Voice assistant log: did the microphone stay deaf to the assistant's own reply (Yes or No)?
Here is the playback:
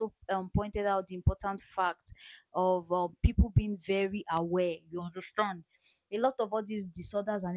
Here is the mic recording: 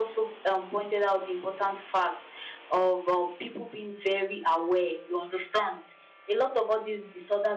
No